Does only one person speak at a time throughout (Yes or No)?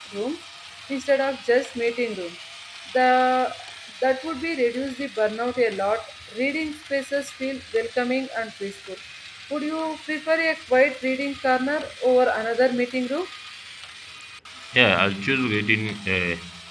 Yes